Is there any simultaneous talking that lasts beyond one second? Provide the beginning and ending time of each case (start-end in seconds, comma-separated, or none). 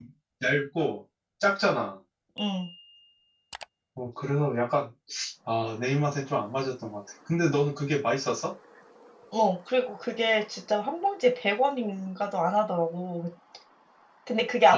none